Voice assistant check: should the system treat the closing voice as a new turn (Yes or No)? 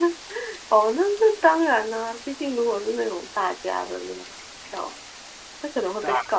No